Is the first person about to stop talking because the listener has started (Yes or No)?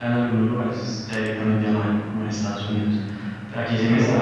Yes